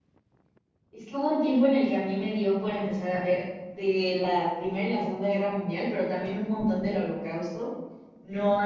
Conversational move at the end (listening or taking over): listening